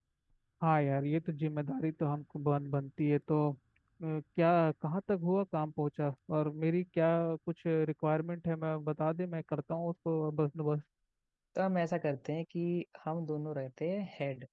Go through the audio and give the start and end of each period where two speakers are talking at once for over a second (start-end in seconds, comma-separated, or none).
none